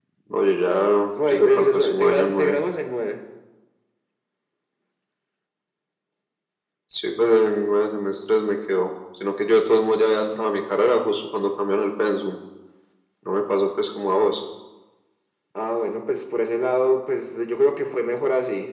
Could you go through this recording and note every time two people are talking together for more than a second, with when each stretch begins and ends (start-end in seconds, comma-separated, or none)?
1.3-2.6